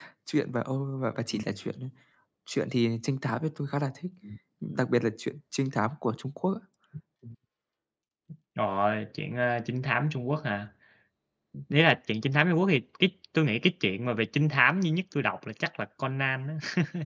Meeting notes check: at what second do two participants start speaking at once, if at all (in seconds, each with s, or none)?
none